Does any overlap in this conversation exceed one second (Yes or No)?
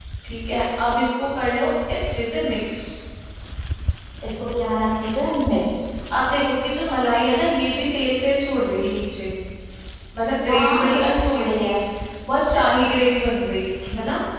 Yes